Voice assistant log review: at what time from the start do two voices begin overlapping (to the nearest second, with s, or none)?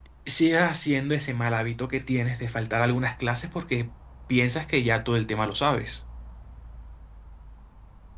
none